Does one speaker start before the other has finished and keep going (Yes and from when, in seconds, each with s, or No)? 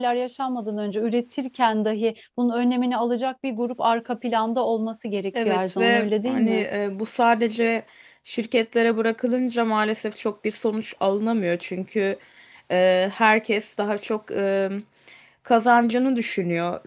Yes, from 5.3 s